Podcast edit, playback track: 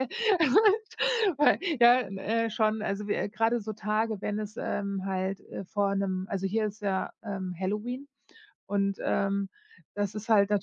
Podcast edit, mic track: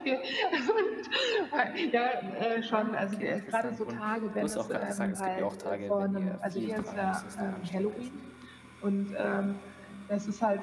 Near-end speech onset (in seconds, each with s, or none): 2.7 s